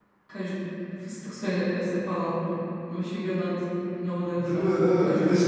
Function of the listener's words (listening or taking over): taking over